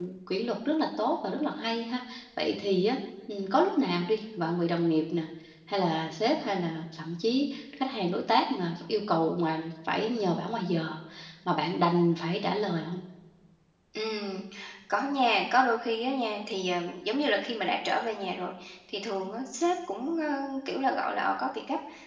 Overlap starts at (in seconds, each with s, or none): none